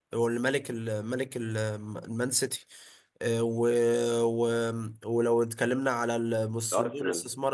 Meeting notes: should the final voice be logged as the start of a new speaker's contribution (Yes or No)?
No